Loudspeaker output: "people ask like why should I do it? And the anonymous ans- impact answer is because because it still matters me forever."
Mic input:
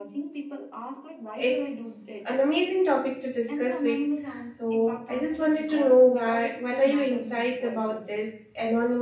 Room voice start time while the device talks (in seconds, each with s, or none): 1.3 s